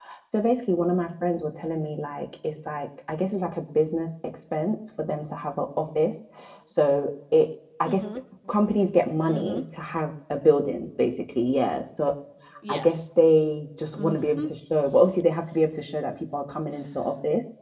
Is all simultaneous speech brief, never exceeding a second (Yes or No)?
Yes